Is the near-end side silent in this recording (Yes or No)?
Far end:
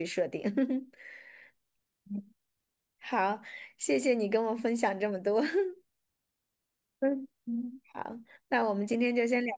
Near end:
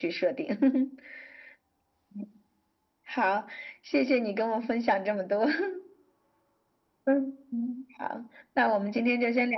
Yes